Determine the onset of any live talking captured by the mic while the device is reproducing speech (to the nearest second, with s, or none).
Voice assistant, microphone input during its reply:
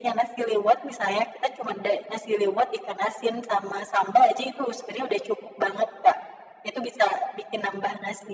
none